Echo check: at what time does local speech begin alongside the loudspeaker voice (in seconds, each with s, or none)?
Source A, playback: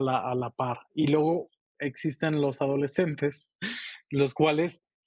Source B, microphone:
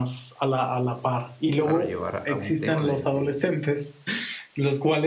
1.6 s